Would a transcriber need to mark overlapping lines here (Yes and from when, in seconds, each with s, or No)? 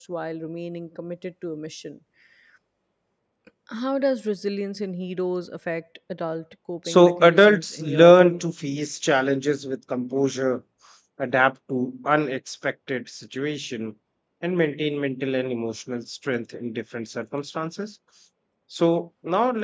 Yes, from 6.8 s